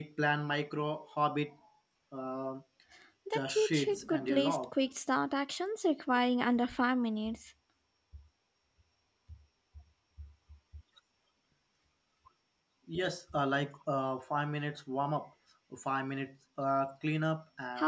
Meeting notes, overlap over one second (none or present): present